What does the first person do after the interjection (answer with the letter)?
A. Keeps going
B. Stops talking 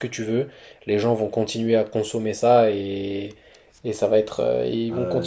B